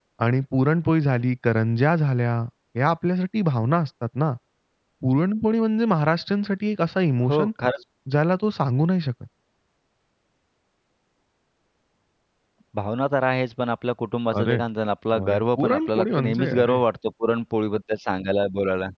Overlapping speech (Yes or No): Yes